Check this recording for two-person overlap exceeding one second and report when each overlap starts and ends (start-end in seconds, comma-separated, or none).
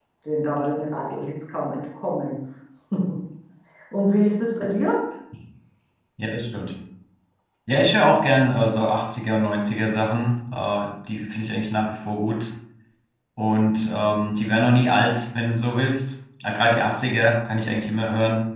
none